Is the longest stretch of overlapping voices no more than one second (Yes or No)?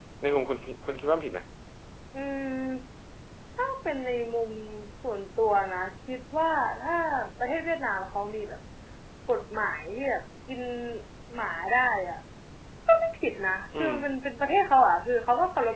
Yes